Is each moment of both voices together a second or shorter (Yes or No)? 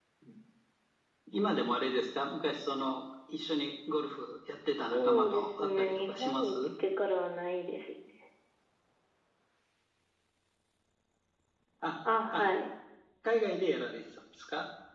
No